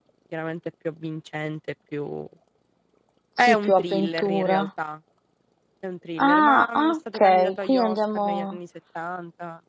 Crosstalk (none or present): present